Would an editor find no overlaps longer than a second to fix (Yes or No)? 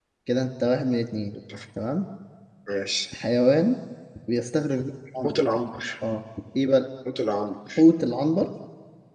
Yes